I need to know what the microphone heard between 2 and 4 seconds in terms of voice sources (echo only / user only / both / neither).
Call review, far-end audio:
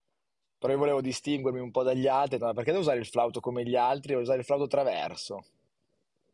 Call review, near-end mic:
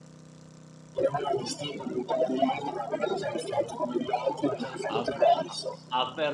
echo only